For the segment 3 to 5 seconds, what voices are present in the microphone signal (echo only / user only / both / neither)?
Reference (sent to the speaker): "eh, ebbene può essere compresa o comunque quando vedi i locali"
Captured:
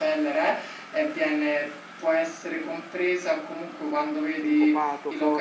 both